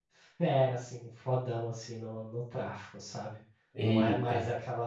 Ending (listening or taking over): listening